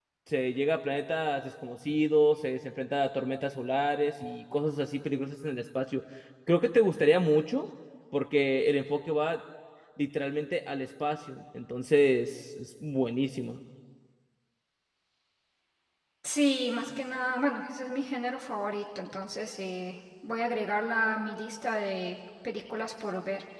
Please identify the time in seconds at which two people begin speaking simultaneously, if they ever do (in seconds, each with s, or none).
none